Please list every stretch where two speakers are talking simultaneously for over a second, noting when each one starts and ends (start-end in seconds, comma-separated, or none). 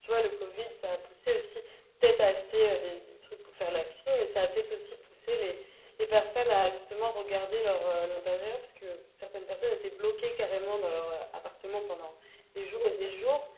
none